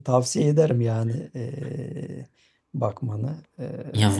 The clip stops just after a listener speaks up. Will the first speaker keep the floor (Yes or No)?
No